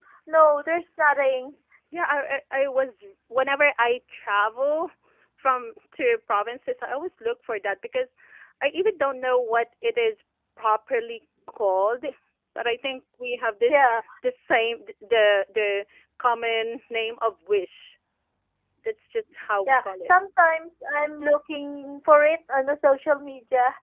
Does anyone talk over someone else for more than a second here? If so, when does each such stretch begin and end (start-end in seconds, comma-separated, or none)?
none